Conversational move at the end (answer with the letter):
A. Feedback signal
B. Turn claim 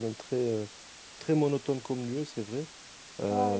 A